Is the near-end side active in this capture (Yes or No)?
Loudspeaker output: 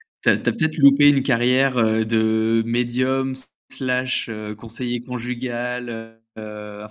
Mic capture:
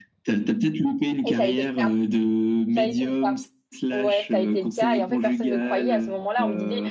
Yes